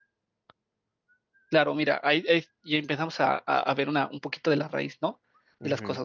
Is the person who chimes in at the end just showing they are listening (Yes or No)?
Yes